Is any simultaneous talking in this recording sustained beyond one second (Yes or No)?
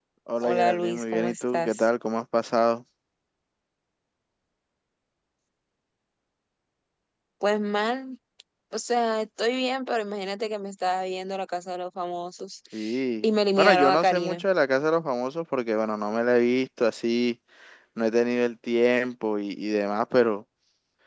Yes